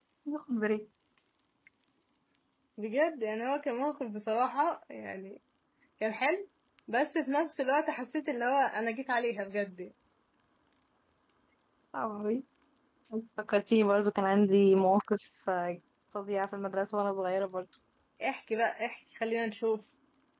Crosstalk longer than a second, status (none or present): none